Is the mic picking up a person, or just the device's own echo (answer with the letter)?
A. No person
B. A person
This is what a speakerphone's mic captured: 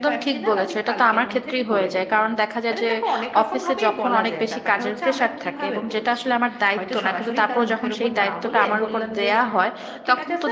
B